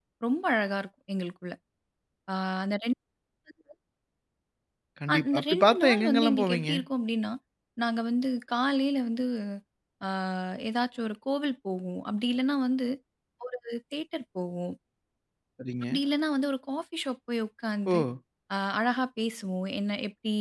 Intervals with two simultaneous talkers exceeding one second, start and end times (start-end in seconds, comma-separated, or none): 5.1-6.7